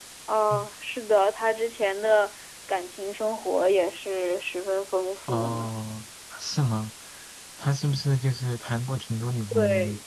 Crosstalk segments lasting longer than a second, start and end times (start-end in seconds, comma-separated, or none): none